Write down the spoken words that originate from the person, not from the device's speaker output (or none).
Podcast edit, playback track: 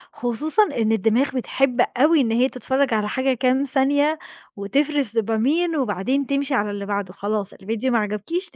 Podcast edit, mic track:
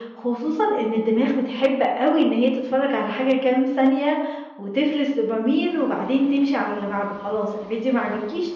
none